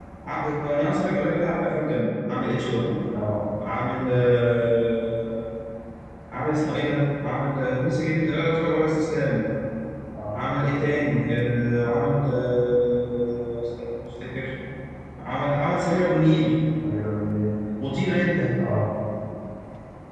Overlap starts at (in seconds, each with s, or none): none